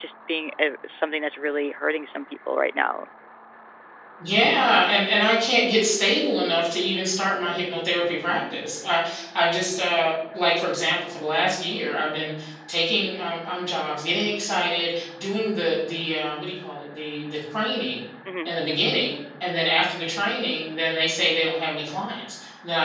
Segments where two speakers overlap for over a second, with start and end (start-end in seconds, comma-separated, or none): none